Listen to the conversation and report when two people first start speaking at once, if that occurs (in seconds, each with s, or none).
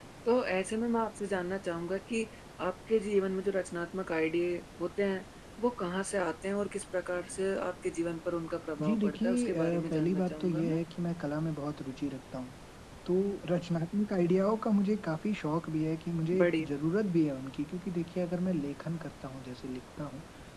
8.8 s